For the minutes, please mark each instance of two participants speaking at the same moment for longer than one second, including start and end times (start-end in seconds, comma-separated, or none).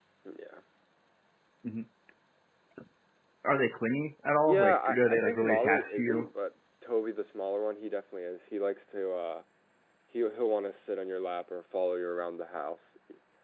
4.5-6.3